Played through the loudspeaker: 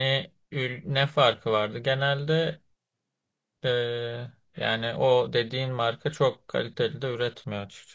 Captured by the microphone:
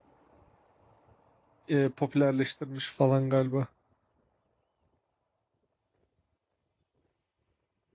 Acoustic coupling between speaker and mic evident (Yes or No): No